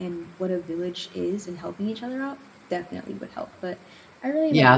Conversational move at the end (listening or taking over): taking over